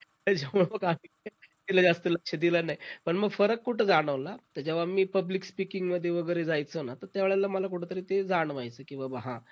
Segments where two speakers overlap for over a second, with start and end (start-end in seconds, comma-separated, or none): none